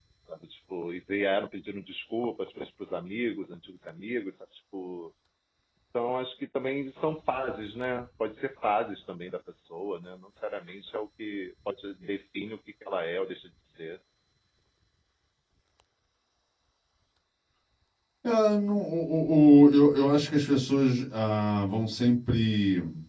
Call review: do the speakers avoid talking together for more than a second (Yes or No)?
Yes